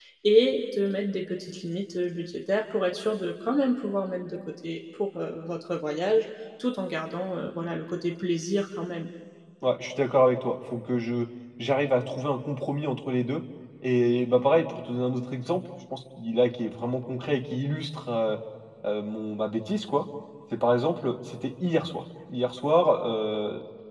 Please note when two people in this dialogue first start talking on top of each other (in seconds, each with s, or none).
none